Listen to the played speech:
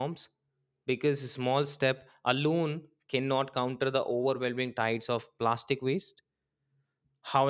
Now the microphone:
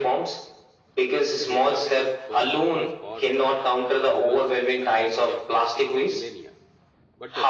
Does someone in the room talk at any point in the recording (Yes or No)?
Yes